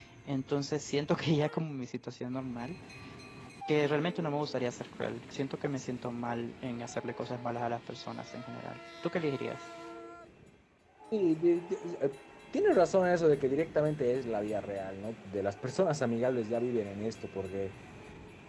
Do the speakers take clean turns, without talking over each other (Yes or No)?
Yes